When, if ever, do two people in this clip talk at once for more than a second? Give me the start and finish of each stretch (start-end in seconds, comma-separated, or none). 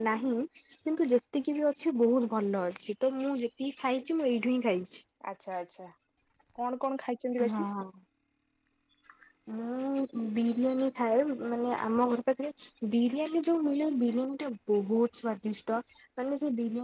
none